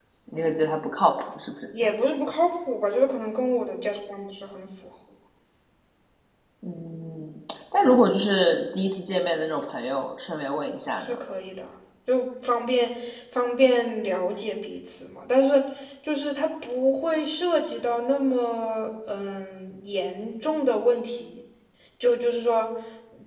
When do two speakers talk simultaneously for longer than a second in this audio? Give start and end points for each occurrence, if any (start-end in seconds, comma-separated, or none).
none